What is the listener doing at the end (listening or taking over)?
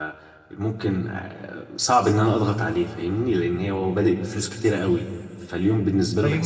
taking over